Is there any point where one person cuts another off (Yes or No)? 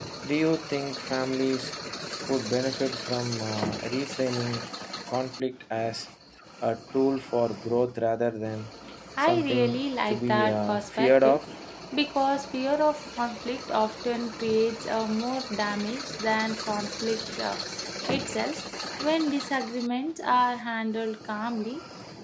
Yes